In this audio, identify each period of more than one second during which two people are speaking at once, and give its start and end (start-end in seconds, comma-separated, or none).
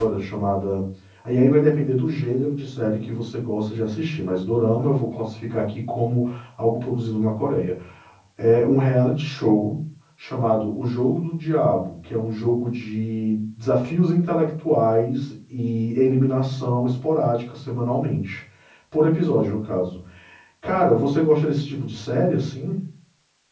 none